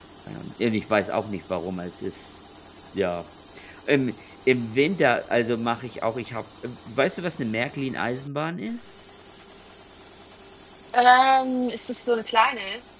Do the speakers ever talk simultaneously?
No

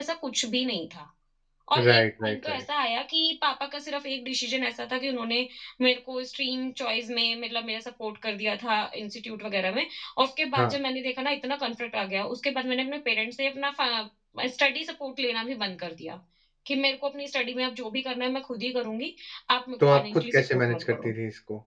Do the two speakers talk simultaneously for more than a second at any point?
Yes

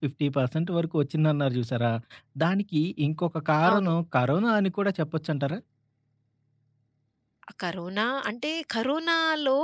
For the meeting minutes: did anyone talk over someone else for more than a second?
No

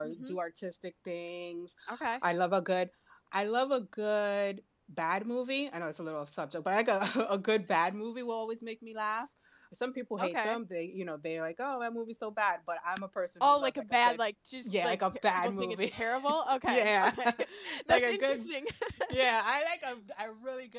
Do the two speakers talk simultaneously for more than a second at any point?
Yes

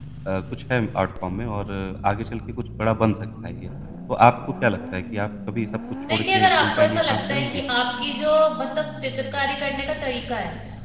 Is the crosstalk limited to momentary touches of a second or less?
No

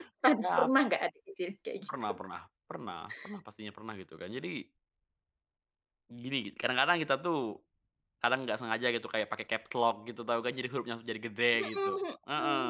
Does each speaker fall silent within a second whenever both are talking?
Yes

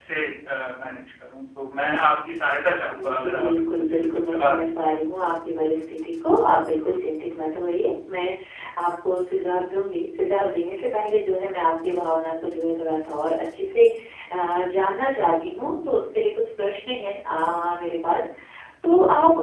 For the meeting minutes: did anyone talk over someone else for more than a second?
Yes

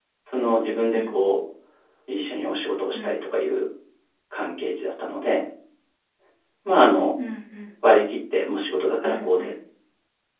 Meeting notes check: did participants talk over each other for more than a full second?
No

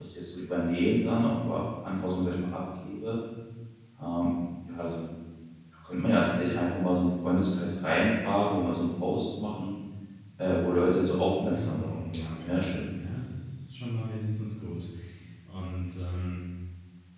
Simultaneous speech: Yes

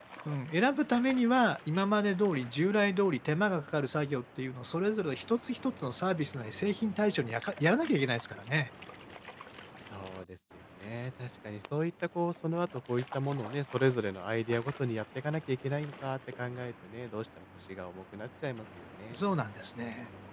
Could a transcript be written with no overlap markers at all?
Yes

